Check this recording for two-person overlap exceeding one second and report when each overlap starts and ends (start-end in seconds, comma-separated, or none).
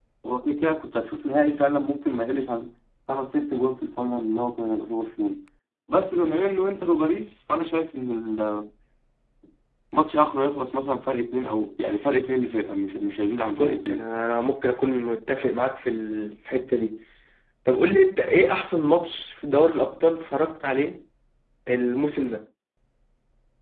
none